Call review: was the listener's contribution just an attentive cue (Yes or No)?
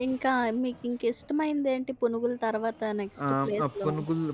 No